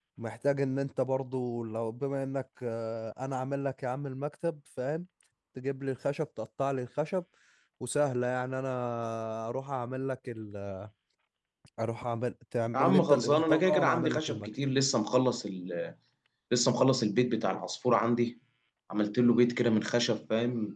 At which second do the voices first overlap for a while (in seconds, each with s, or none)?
12.7 s